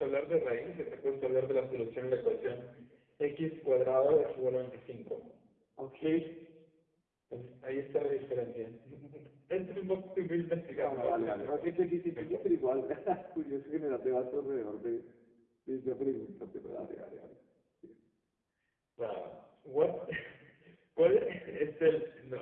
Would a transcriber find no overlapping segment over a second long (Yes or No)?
No